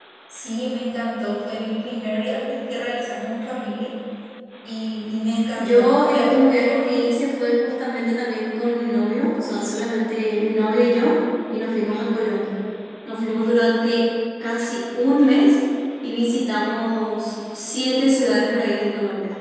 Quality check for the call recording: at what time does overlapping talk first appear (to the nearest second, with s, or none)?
6 s